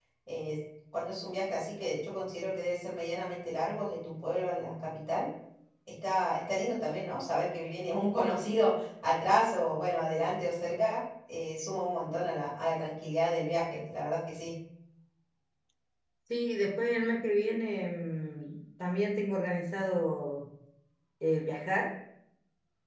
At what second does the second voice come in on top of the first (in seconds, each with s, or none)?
none